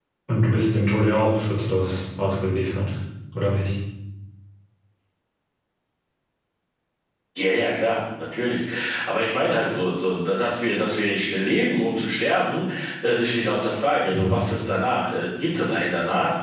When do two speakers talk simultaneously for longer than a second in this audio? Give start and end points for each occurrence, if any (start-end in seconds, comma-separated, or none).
none